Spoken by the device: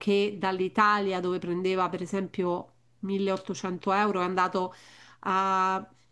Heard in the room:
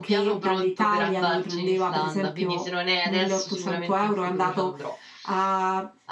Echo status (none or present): present